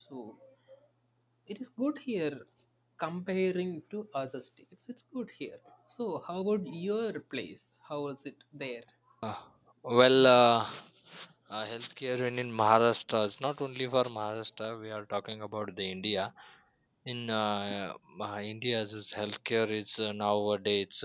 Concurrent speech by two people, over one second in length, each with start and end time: none

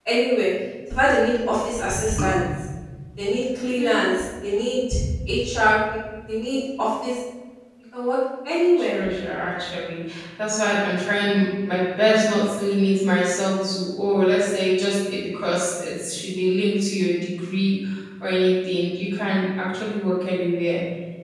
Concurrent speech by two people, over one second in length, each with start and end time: none

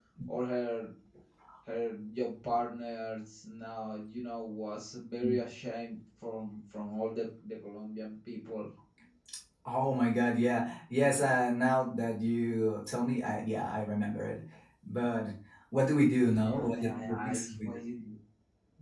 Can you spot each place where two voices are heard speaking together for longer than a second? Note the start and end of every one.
16.5-17.7

